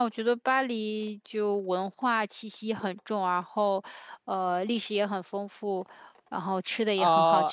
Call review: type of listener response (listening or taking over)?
taking over